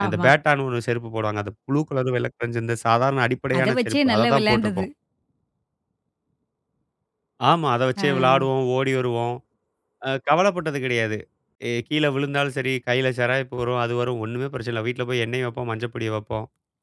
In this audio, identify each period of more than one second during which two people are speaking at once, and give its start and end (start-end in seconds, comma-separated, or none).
3.6-4.8